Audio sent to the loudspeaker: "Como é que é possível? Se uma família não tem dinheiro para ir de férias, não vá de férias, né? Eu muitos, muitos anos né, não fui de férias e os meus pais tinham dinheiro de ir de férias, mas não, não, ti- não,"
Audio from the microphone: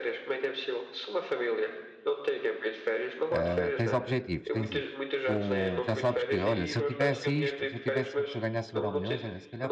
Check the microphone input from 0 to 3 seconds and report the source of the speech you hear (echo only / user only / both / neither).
echo only